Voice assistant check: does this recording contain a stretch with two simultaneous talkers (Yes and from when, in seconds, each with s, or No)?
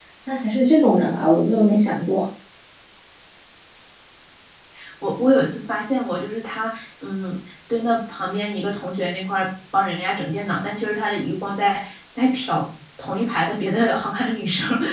No